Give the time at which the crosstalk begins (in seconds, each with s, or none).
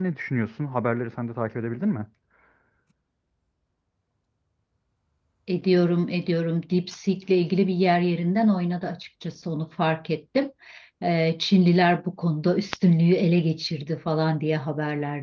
none